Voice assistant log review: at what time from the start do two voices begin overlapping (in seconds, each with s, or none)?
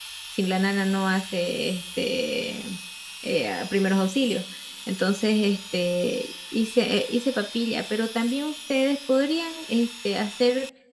none